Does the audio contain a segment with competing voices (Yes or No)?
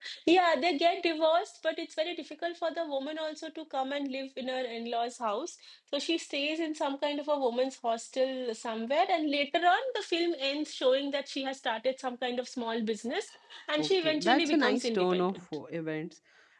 Yes